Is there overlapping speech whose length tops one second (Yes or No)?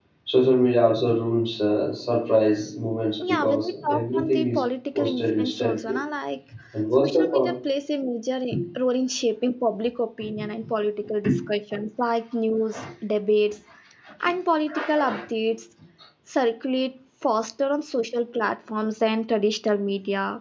Yes